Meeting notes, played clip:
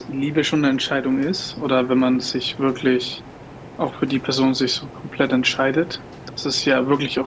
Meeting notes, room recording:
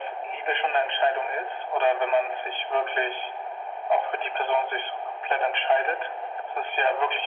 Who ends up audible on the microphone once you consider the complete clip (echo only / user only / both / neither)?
echo only